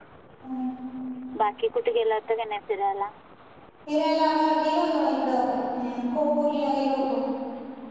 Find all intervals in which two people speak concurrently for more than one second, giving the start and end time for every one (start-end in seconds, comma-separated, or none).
none